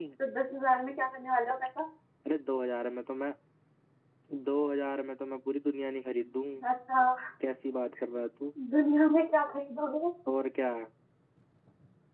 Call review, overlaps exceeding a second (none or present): none